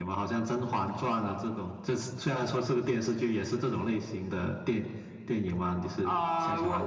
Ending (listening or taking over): taking over